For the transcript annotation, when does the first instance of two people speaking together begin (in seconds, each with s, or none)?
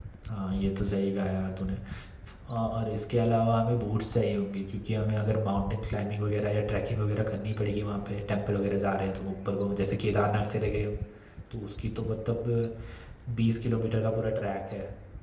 none